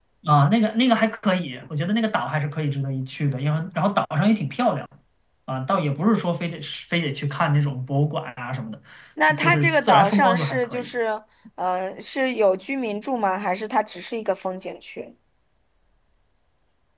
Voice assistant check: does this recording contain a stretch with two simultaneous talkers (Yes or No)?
Yes